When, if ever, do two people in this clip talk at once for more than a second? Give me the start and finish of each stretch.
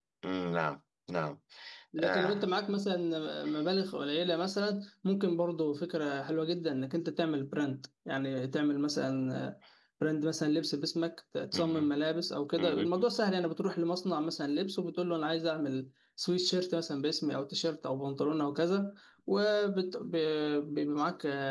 none

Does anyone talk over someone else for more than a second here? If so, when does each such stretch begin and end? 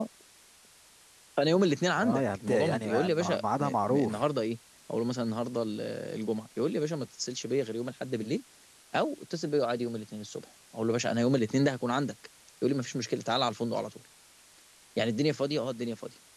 2.0-4.2

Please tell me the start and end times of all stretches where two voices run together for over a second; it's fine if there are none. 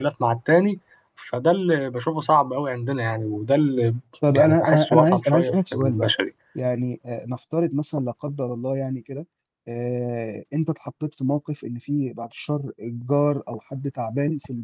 4.3-6.1

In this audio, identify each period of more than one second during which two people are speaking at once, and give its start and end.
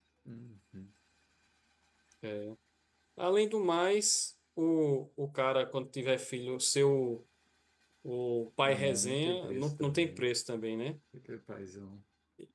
8.6-10.2

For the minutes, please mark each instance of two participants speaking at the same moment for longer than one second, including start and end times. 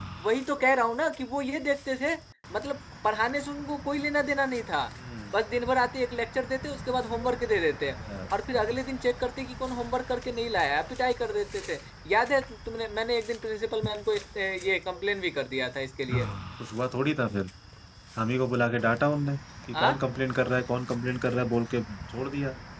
none

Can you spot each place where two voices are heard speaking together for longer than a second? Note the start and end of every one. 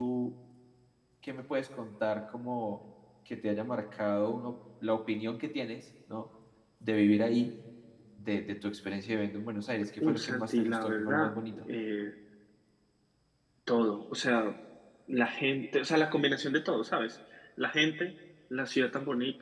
10.0-11.6

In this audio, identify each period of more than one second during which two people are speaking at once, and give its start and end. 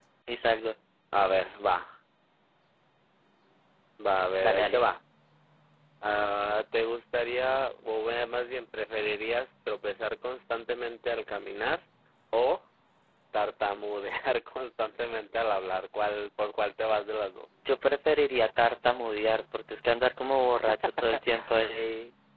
none

